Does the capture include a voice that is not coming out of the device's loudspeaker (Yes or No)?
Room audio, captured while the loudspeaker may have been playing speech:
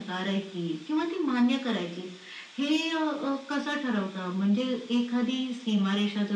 No